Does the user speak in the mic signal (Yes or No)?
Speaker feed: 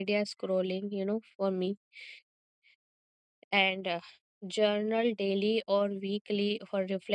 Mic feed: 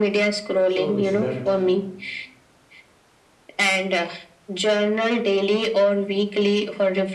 Yes